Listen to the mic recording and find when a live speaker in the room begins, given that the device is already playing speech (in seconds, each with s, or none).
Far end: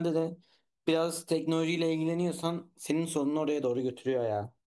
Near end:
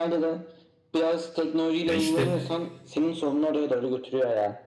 1.8 s